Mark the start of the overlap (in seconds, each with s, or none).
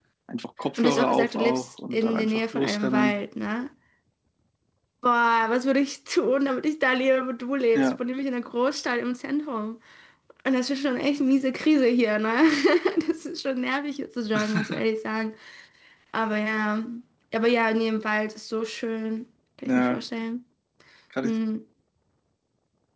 0.8 s